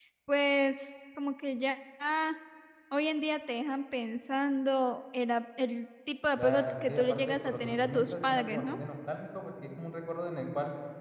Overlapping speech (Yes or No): Yes